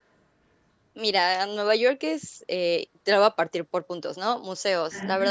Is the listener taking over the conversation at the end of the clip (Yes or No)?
No